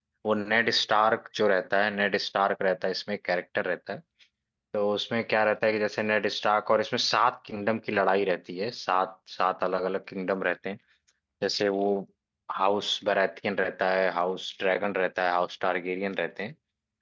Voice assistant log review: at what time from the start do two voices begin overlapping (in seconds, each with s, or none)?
none